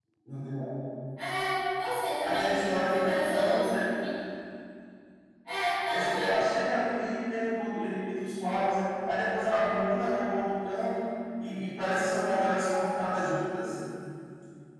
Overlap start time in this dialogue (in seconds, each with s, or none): 2.2 s